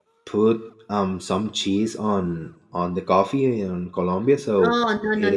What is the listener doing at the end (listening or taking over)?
taking over